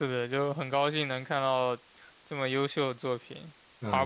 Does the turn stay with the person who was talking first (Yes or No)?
Yes